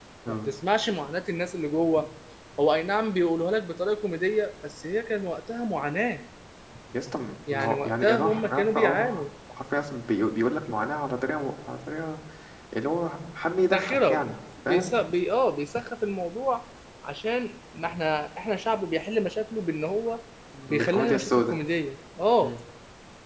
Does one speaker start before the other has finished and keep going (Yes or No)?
Yes